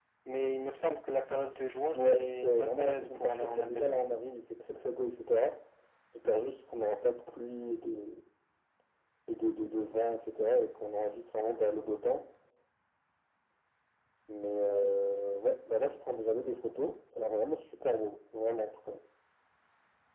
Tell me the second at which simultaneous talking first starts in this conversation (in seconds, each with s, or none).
1.9 s